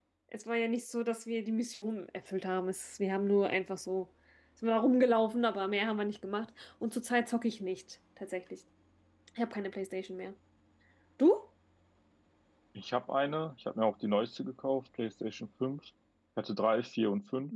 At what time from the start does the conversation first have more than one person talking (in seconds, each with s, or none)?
none